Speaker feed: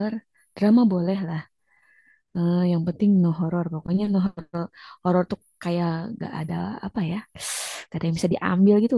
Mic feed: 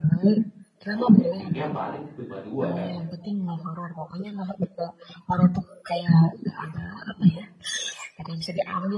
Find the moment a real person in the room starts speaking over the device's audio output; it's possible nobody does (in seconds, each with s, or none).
0.9 s